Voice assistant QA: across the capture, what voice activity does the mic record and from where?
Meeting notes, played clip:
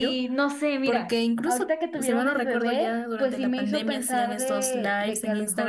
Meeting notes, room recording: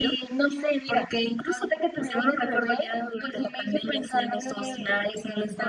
echo only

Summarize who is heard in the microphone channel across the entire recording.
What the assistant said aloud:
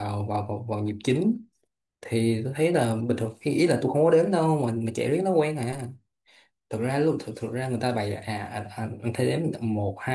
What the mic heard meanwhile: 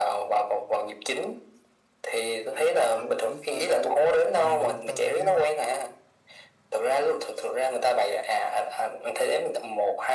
both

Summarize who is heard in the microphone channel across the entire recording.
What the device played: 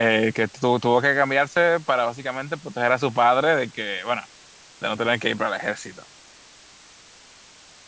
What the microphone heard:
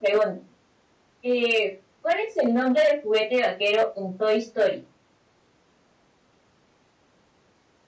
user only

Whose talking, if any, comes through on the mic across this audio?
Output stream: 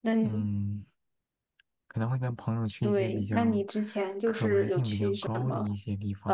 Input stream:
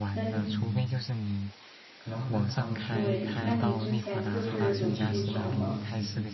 both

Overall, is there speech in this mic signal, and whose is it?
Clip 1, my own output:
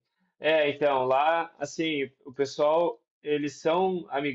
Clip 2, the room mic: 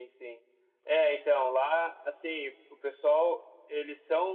echo only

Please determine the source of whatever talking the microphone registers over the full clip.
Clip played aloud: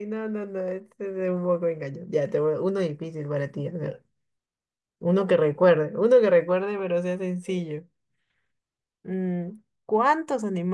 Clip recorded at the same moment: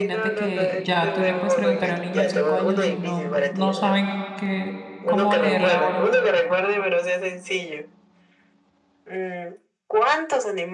both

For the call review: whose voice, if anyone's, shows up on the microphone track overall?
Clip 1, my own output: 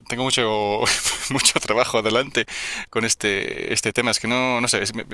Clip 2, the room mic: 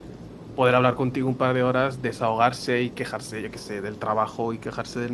user only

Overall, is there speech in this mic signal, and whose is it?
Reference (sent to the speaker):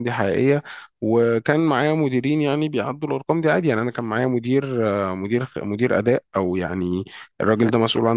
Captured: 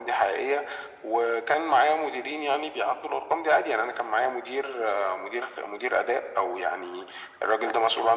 echo only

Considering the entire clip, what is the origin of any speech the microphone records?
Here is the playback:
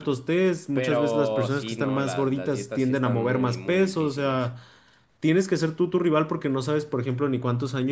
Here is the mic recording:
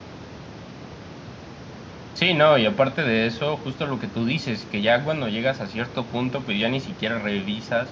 user only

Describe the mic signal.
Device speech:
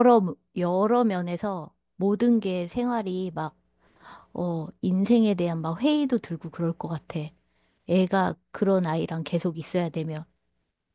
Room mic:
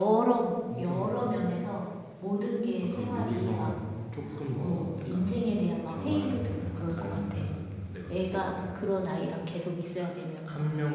both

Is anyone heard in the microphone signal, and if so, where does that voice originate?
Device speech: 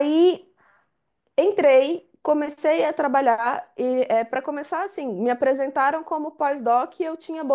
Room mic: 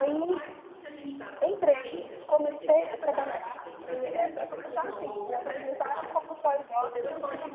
both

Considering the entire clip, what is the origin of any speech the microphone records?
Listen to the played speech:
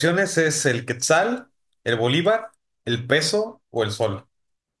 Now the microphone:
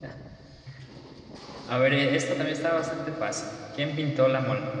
user only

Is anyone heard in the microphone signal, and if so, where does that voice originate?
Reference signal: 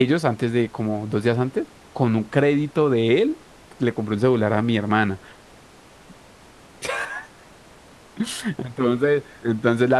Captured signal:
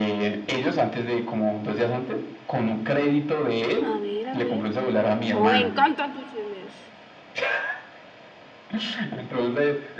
both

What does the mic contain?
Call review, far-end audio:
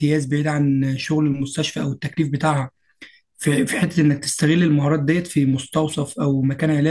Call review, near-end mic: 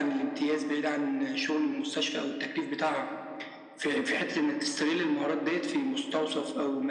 echo only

